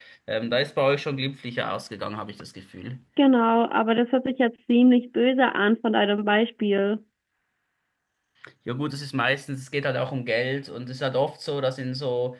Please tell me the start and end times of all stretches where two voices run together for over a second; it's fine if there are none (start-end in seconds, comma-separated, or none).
none